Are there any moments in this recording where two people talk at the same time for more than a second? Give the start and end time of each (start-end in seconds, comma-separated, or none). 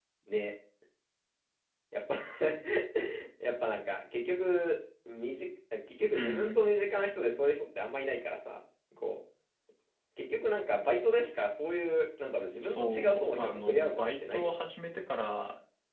12.6-14.6